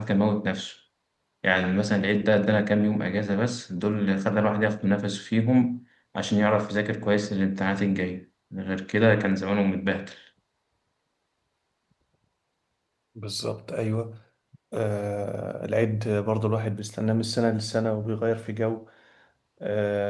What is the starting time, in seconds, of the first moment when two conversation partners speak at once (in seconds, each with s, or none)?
none